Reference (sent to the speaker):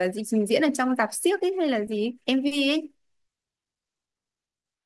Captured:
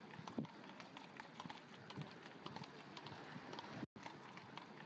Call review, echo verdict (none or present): none